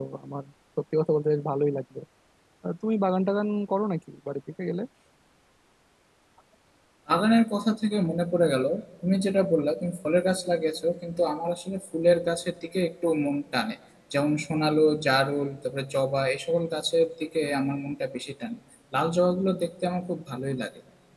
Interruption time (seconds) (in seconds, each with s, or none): none